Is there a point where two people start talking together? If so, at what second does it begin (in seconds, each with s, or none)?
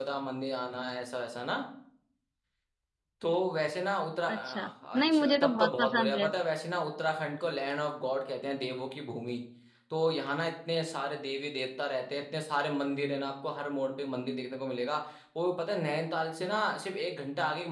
4.3 s